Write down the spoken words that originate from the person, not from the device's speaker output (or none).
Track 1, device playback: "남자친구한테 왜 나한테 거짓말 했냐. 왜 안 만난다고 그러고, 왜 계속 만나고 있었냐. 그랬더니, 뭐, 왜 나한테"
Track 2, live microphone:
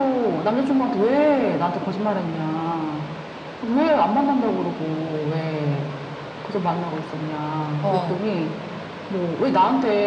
어.